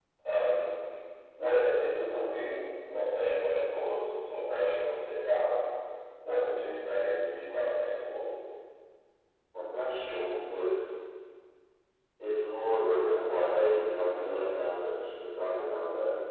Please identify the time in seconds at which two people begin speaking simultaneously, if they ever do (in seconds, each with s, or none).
none